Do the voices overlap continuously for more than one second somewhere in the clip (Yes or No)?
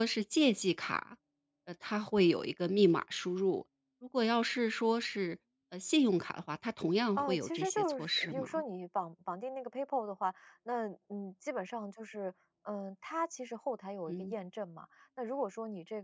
Yes